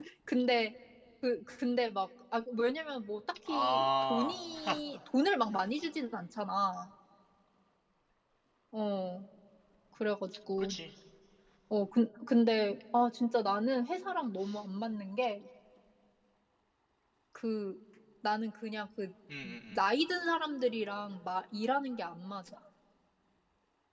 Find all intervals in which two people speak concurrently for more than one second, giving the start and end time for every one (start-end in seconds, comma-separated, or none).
3.5-4.8